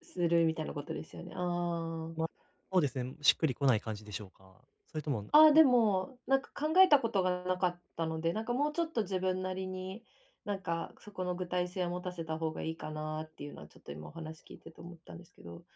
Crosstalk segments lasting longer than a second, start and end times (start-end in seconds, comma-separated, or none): none